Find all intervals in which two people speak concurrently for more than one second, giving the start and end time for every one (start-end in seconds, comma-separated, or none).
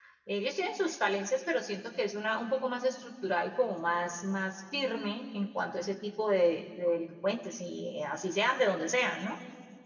none